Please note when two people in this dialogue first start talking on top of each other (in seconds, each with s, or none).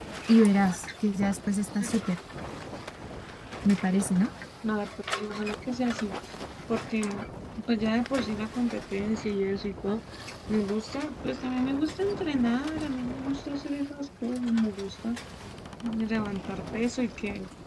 none